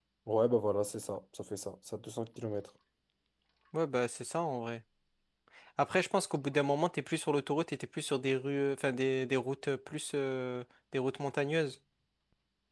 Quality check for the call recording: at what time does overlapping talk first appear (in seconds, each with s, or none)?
none